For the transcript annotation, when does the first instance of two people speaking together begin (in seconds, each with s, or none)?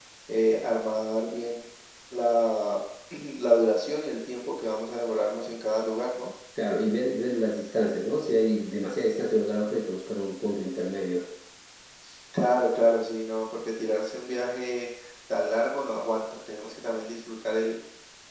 none